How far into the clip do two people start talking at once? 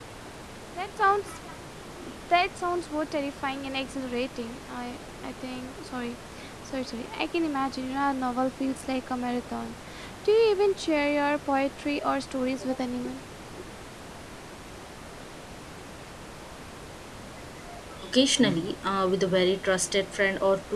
none

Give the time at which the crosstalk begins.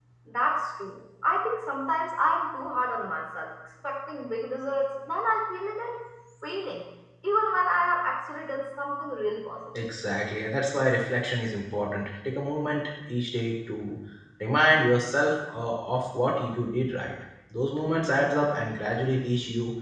none

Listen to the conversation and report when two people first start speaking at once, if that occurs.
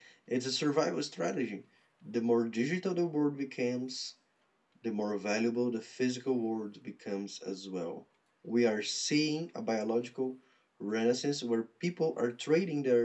none

